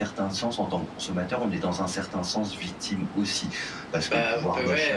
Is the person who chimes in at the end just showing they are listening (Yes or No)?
No